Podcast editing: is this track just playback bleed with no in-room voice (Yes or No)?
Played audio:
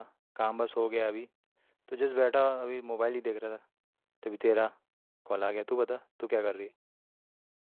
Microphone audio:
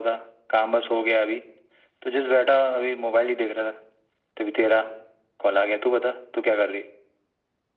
Yes